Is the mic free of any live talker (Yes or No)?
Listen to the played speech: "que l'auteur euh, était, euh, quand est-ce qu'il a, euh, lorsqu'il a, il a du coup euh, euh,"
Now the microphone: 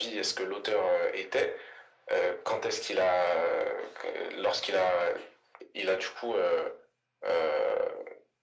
Yes